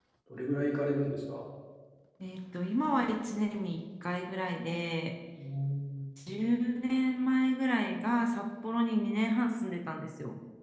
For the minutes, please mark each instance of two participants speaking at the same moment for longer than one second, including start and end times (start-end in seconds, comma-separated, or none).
none